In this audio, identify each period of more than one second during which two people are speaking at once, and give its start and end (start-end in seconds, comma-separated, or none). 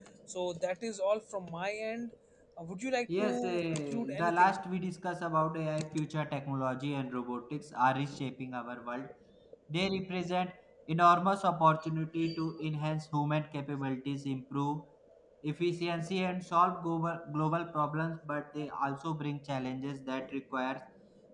3.2-4.5